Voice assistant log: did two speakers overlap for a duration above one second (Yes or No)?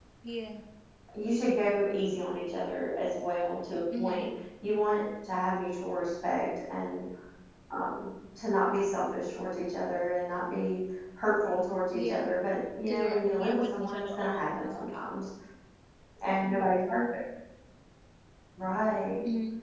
Yes